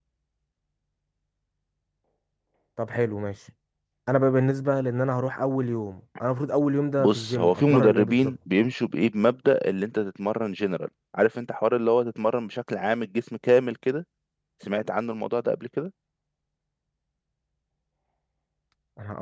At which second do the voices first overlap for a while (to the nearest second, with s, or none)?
7 s